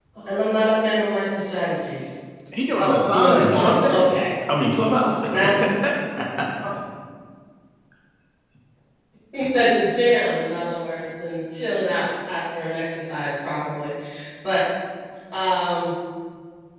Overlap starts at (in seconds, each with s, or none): 2.8 s